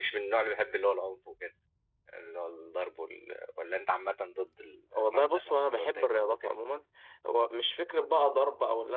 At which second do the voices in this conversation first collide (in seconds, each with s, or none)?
5.0 s